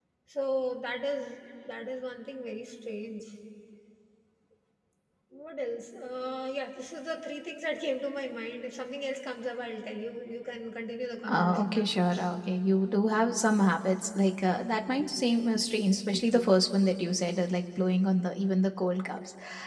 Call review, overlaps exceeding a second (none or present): none